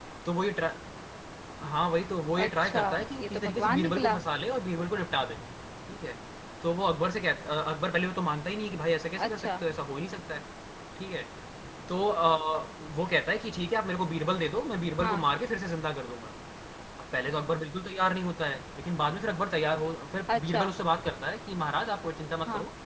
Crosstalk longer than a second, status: present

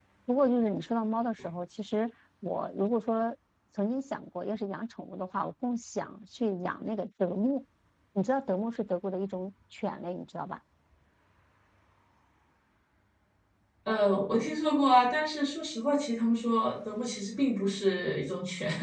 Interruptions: none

